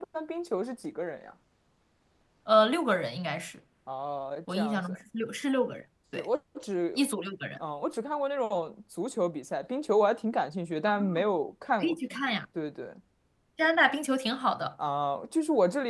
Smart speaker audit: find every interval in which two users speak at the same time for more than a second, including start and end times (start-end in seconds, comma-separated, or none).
none